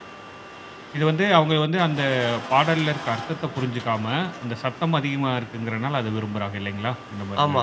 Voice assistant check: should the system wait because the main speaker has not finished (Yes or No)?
No